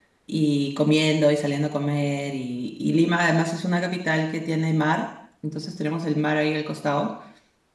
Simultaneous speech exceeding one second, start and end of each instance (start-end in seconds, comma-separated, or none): none